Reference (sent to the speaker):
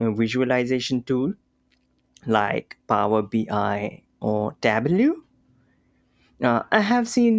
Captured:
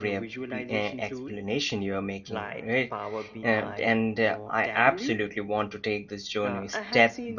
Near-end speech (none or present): present